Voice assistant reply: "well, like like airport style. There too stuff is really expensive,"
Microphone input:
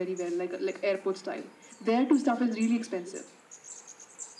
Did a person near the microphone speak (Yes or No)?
No